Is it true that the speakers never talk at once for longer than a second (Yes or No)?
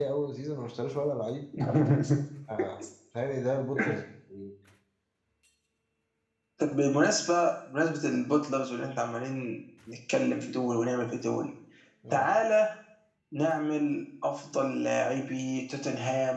Yes